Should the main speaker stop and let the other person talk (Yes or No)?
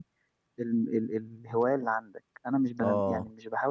No